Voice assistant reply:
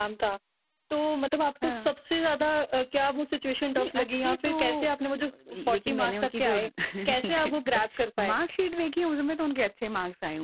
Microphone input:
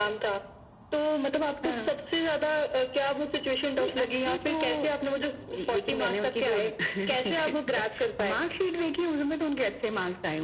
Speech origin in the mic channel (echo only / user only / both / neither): echo only